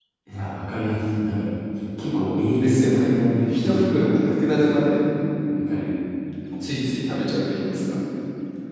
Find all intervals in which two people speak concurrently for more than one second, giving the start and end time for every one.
2.5-3.8

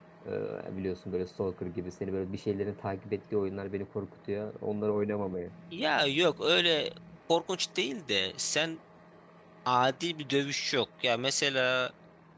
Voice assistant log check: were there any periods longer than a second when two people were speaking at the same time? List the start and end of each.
none

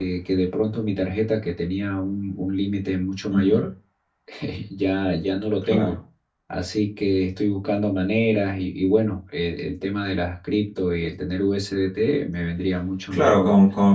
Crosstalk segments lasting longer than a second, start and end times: none

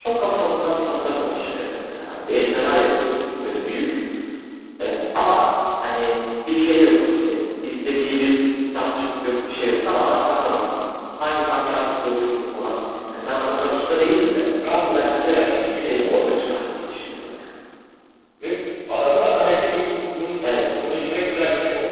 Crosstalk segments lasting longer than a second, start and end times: 14.7-16.1

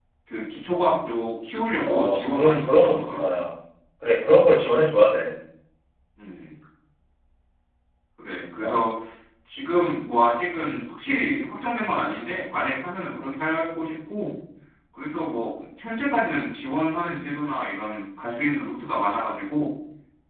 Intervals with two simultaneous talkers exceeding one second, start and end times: 1.9-3.2

